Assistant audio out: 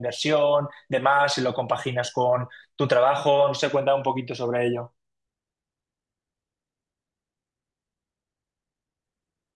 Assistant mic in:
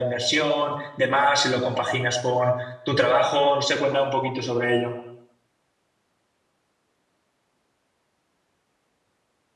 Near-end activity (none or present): none